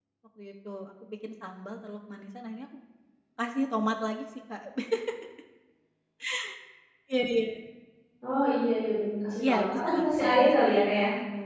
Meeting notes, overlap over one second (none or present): present